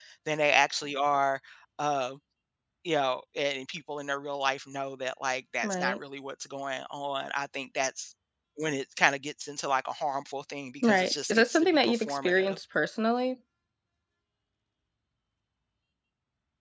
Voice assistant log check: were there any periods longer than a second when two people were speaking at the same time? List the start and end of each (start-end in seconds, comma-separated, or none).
10.8-12.6